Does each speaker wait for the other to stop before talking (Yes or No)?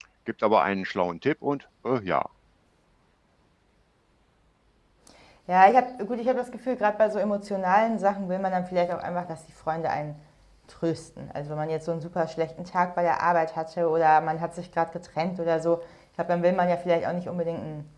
Yes